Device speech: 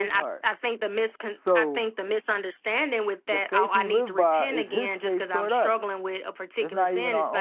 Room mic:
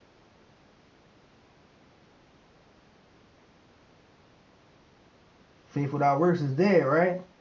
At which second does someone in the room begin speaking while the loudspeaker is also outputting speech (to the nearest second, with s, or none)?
6 s